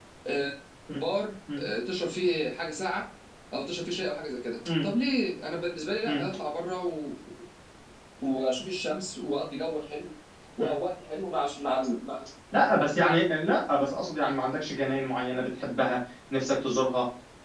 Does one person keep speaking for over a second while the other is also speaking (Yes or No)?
No